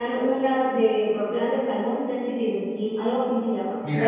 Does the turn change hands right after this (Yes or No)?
Yes